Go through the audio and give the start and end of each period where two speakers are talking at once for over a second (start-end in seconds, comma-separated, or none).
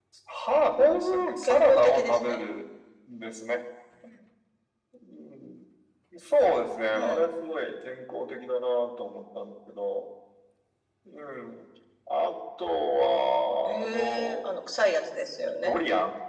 0.8-2.4, 13.7-14.9